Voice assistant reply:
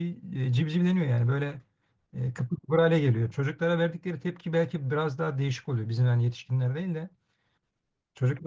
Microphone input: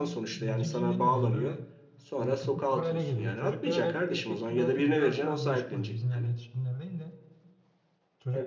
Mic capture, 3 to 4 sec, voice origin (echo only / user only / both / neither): both